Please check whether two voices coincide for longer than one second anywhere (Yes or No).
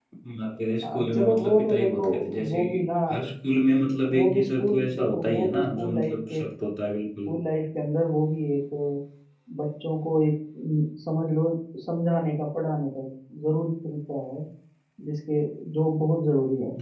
Yes